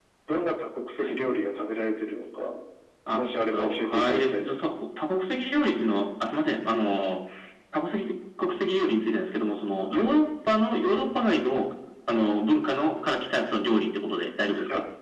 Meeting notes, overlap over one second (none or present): present